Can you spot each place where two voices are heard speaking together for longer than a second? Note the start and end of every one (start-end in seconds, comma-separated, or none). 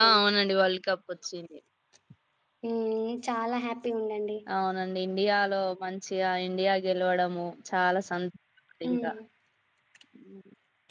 none